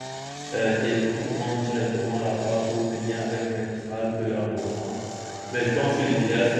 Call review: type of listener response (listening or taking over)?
listening